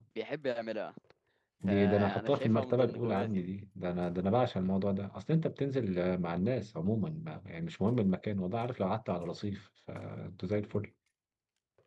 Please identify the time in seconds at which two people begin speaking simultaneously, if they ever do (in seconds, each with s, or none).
1.7 s